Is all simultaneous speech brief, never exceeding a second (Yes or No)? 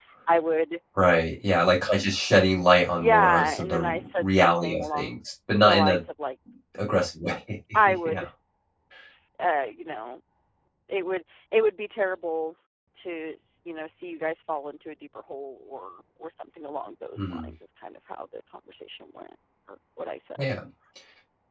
No